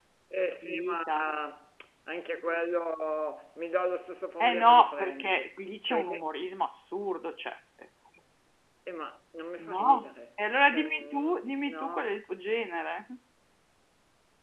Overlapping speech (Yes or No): Yes